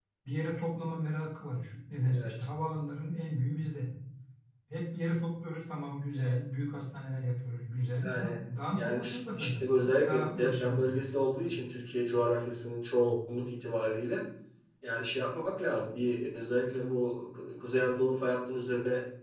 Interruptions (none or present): present